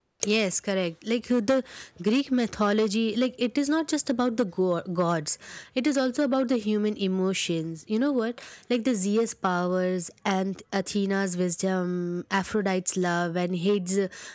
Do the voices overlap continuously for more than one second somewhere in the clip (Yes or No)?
No